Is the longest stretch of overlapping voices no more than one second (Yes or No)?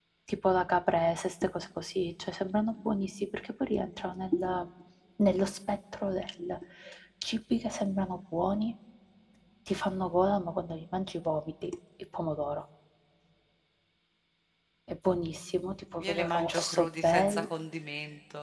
No